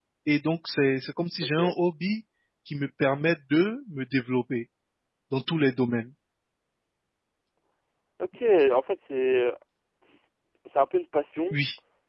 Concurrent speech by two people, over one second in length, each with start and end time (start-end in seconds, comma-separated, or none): none